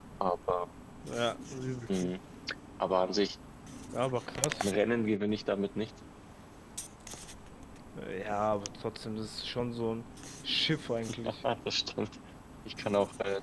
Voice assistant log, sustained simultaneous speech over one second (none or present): none